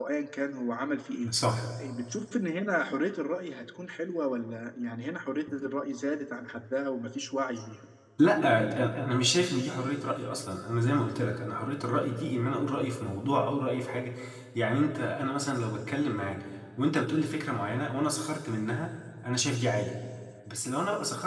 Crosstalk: none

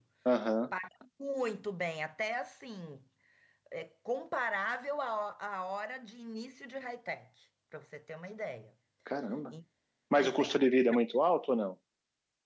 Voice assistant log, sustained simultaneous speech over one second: none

